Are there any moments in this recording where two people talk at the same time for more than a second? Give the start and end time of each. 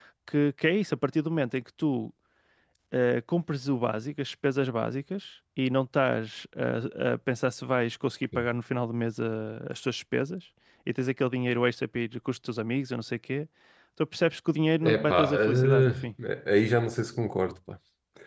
14.8-16.1

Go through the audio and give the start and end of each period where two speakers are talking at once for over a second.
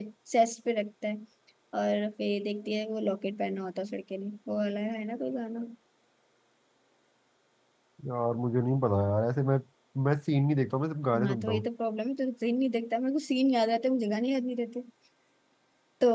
none

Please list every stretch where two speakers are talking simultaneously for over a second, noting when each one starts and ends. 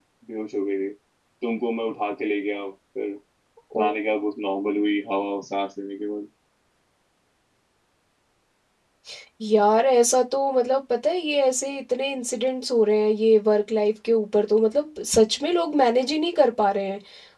none

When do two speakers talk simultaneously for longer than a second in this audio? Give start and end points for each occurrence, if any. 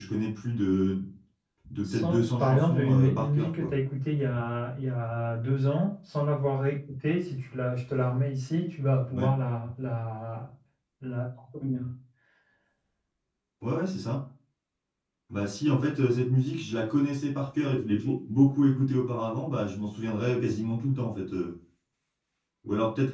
1.9-3.7

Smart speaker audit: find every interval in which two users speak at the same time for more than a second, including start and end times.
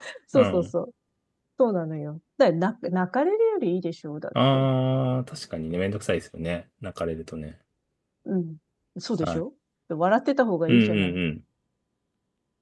none

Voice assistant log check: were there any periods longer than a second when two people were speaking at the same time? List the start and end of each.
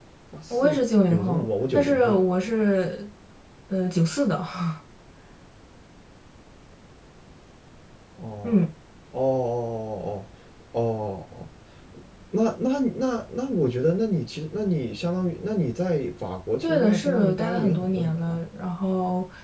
0.5-2.2, 16.6-18.4

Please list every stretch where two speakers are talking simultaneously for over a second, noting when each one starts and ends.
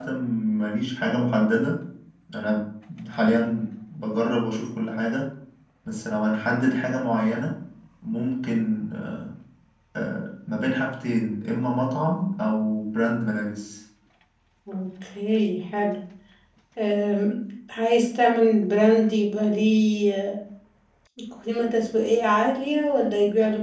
none

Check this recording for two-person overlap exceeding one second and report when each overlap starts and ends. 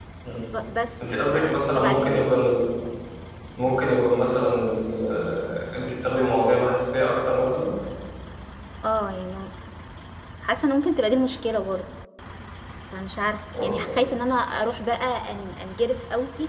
1.0-2.3

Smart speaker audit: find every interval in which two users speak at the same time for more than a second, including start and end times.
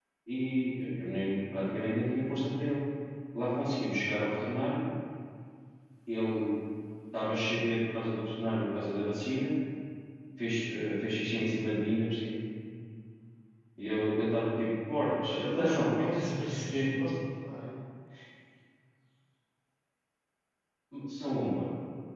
15.2-16.9

